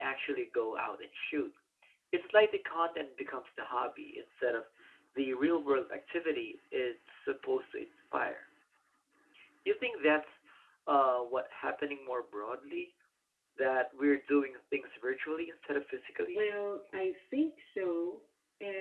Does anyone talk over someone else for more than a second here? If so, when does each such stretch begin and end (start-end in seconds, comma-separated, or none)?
none